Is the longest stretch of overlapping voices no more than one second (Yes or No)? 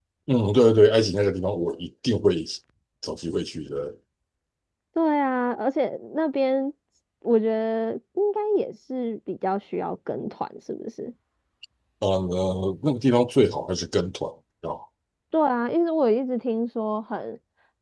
Yes